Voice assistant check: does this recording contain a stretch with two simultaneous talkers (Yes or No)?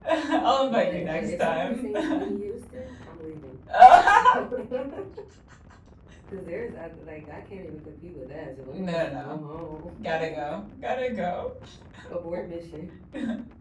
Yes